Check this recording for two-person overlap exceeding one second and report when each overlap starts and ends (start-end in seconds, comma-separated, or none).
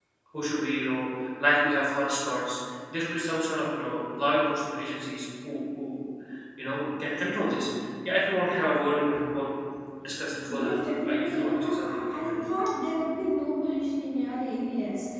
10.5-12.5